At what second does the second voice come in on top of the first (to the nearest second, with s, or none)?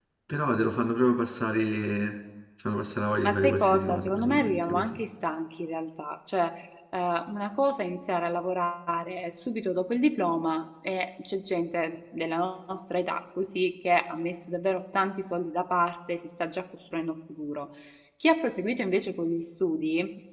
3 s